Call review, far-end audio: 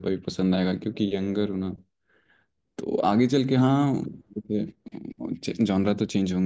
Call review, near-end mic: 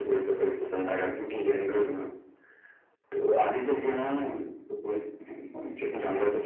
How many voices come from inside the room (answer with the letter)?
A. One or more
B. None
B